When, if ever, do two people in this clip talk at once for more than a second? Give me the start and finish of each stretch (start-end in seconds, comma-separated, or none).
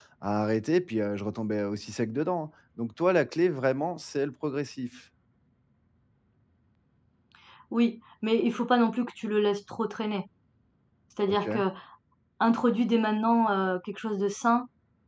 none